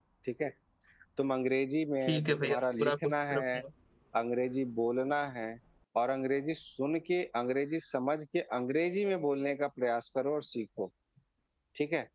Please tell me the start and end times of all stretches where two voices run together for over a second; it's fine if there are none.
2.0-3.4

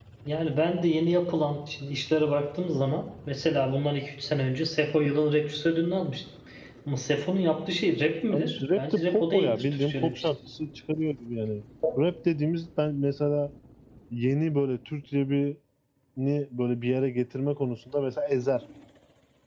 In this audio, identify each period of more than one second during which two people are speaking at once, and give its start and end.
8.3-10.3

